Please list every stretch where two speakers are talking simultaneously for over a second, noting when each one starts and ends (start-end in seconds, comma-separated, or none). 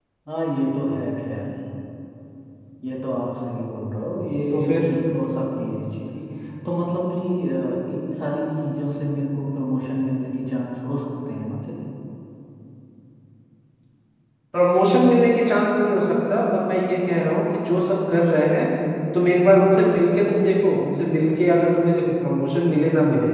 none